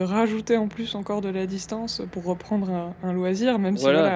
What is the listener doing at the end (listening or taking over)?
taking over